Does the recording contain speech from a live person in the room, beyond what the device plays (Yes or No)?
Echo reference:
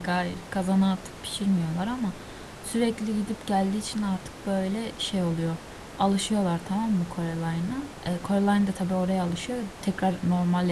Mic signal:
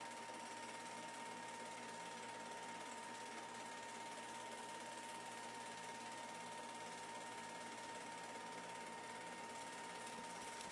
No